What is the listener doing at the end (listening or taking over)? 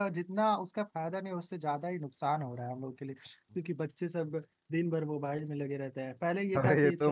taking over